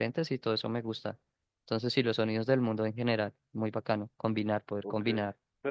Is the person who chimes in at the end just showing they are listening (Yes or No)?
No